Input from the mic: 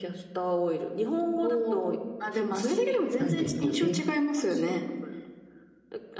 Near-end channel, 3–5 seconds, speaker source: both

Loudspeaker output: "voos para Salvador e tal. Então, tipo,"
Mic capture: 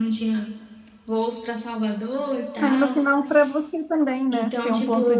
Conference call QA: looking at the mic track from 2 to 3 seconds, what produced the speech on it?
both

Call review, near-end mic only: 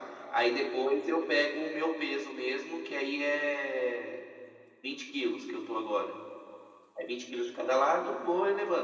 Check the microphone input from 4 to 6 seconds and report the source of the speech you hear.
echo only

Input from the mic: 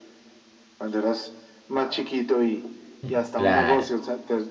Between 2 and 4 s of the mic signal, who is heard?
both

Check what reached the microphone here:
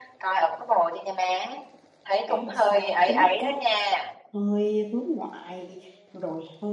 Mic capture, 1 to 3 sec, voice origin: both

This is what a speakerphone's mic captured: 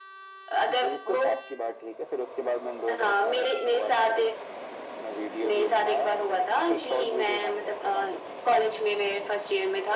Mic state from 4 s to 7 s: echo only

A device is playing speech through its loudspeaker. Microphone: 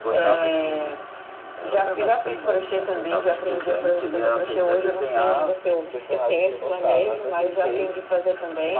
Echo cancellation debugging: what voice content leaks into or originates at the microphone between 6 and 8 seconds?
echo only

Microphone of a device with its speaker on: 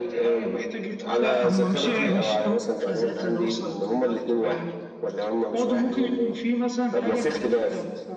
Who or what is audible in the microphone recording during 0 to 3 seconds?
both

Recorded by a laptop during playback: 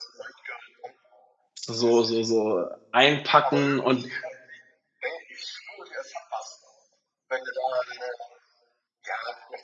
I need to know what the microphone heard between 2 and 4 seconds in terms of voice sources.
both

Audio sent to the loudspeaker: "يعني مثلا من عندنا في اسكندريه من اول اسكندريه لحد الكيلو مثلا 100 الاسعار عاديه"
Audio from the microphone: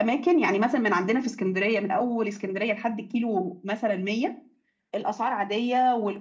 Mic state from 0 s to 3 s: echo only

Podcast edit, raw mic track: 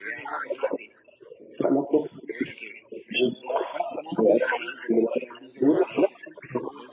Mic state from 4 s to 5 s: echo only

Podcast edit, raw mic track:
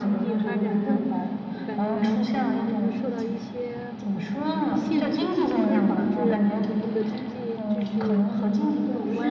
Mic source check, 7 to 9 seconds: both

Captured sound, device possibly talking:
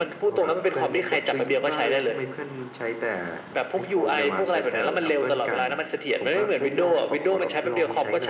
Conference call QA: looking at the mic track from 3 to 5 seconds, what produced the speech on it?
echo only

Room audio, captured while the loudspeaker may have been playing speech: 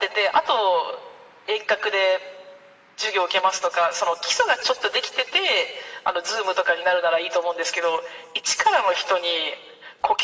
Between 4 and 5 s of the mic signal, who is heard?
echo only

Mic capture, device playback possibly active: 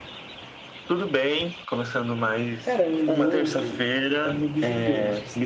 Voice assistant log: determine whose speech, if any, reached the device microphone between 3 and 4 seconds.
both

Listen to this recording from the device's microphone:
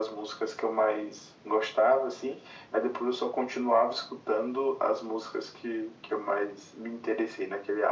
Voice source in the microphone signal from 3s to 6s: echo only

